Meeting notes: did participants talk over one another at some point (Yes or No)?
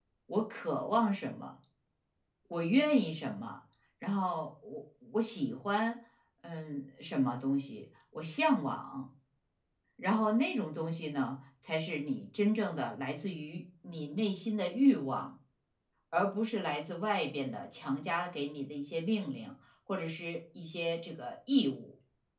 No